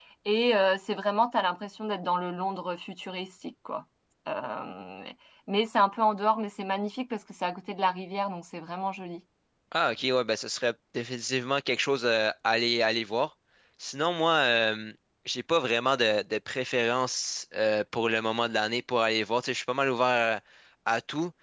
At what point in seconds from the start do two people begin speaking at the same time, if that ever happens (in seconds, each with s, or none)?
none